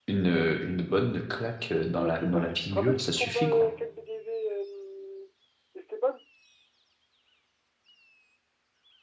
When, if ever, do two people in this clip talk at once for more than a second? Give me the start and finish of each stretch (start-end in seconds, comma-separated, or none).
2.0-3.7